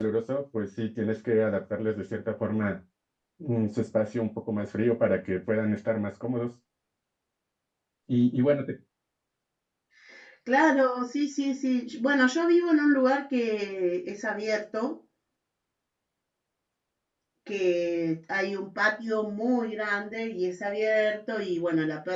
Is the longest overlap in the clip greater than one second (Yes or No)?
No